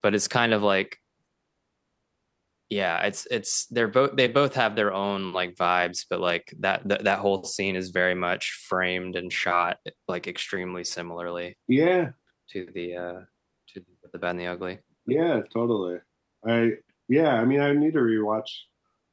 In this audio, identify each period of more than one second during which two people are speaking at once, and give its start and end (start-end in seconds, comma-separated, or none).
none